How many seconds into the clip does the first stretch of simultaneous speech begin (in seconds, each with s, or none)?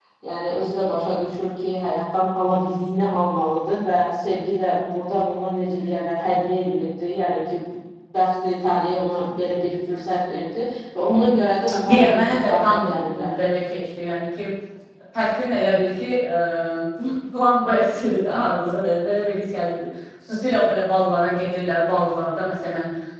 11.7 s